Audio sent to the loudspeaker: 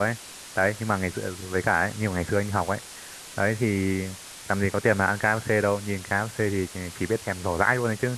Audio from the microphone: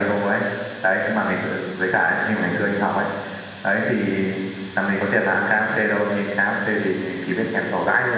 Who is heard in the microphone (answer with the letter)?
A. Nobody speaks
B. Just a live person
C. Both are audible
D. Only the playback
D